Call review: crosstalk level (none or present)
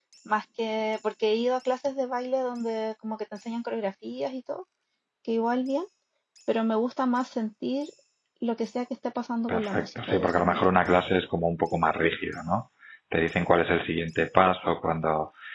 present